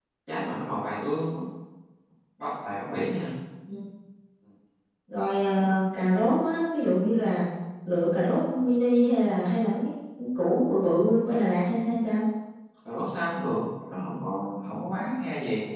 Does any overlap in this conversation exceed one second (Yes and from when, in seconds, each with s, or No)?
No